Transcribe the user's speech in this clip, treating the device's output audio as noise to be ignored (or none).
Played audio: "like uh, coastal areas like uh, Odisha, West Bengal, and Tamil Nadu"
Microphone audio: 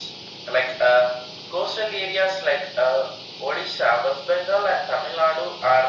none